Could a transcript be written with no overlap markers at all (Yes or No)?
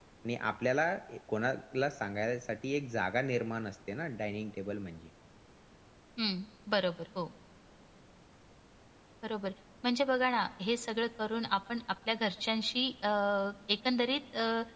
Yes